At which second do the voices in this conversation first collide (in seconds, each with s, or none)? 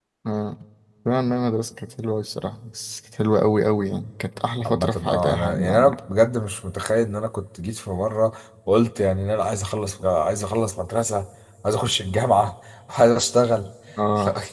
4.7 s